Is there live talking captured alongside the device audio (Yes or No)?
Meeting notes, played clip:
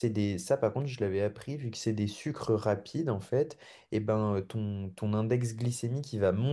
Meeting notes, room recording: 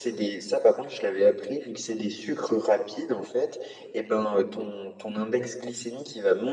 No